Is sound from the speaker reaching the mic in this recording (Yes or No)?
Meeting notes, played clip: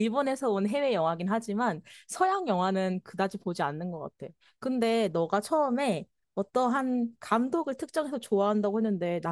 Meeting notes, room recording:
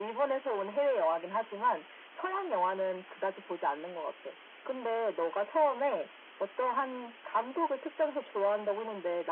Yes